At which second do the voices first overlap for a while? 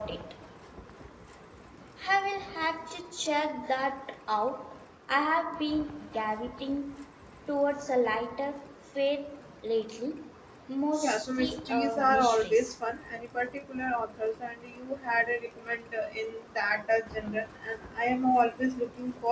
11 s

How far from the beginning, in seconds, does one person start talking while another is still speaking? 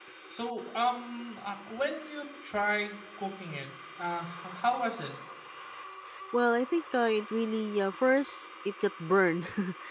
none

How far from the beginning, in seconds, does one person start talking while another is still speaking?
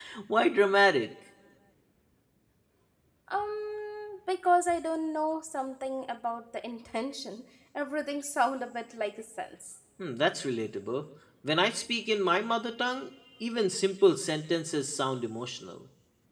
none

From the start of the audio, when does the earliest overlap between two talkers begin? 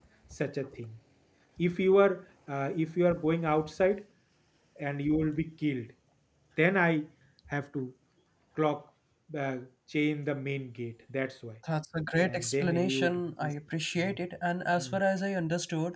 12 s

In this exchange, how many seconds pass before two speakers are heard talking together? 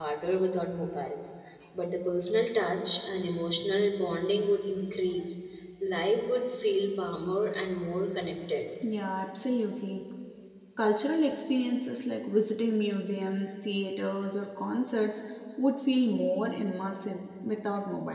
none

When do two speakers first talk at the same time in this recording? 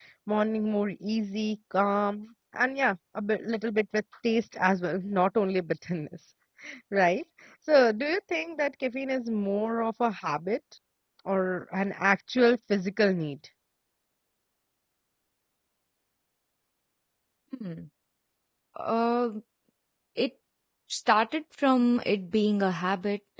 none

